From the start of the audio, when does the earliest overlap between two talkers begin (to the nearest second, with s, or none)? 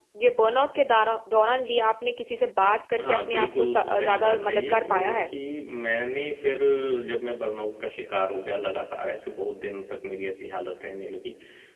3 s